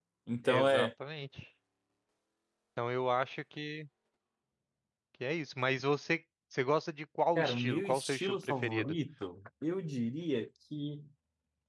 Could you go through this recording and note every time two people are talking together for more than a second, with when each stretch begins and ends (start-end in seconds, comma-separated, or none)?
7.4-9.0